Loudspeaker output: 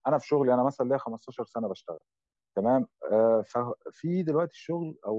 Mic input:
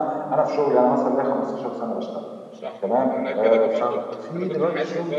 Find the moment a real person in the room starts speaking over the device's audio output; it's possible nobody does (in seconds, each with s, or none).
2.5 s